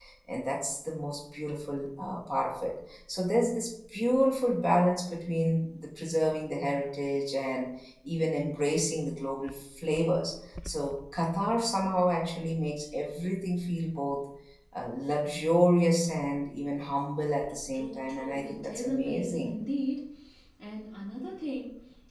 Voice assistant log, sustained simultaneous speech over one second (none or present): present